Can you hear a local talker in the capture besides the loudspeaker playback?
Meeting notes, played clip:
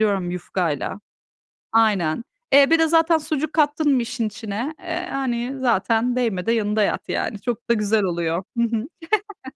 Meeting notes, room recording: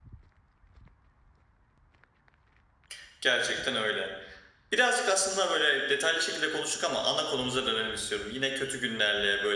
Yes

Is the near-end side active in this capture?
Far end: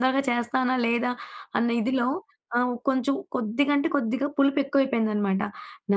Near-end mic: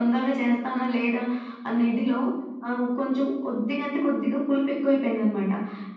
No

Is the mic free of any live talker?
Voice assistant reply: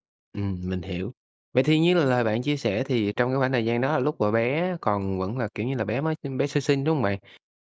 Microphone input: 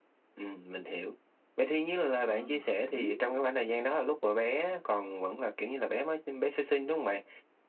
No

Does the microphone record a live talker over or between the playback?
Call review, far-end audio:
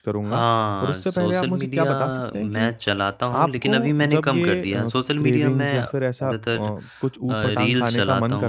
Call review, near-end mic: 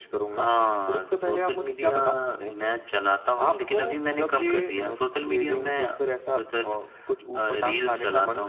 No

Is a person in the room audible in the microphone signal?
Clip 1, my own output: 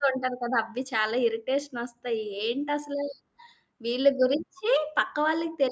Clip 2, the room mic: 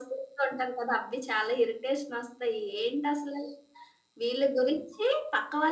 No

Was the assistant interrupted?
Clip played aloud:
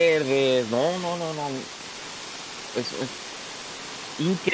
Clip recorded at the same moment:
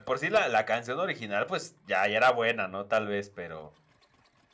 Yes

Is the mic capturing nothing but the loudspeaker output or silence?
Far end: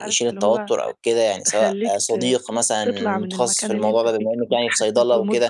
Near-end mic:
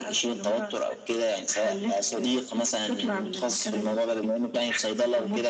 Yes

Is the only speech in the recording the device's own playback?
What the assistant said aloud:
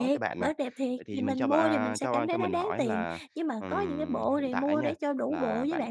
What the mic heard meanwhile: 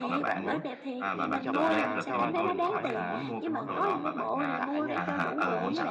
No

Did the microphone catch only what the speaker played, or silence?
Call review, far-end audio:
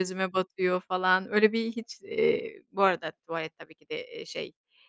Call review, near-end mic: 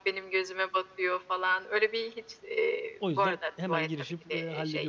No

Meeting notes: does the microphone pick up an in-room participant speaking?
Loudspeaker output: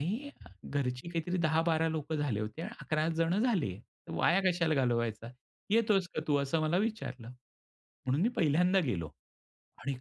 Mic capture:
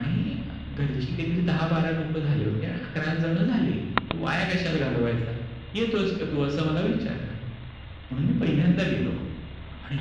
No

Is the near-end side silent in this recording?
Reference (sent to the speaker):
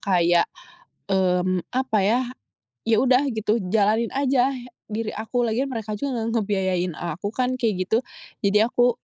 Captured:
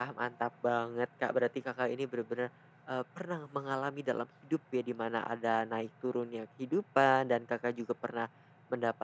No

